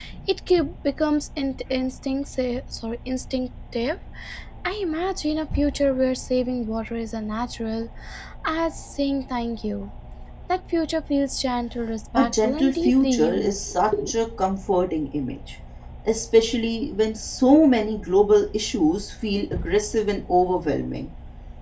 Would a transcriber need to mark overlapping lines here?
Yes, from 12.2 s

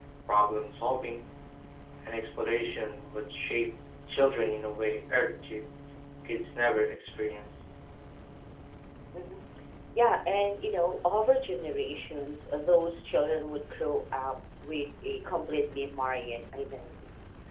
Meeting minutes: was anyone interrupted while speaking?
No

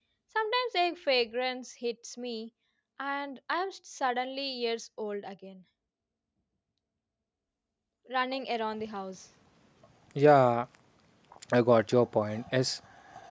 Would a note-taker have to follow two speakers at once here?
No

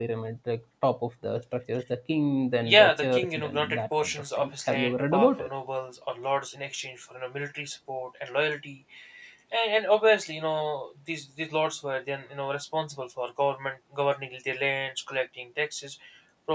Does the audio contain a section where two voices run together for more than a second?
Yes, from 2.6 s

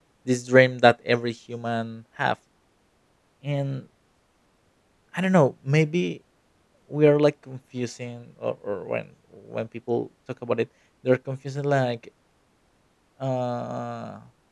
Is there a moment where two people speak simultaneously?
No

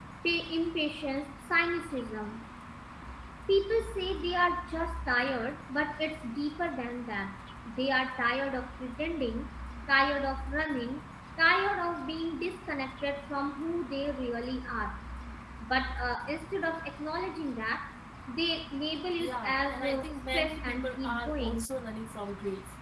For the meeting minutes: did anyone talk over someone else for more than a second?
Yes, from 19.2 s

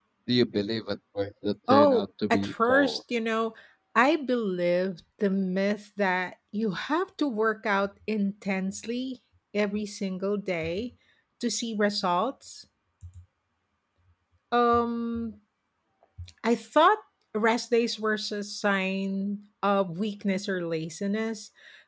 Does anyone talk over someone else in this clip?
Yes, from 1.7 s

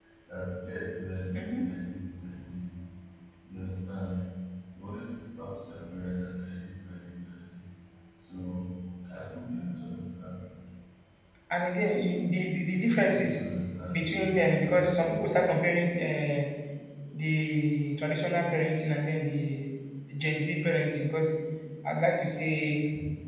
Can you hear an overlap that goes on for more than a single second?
No

